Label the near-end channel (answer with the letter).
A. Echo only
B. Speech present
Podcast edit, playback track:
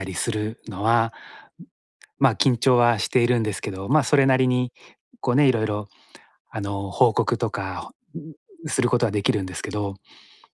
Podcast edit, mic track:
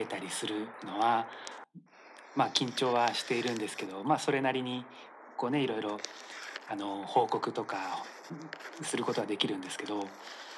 A